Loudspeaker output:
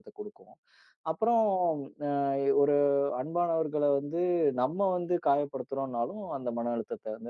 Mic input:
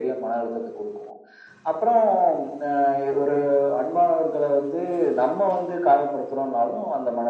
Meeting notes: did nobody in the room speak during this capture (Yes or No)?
Yes